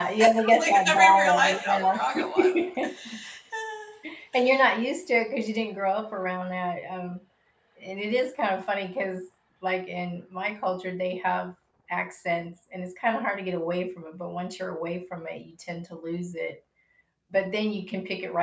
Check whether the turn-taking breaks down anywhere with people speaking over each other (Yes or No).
Yes